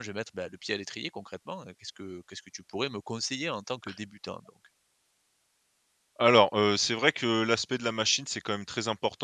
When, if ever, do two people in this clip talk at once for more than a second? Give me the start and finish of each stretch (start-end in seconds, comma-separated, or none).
none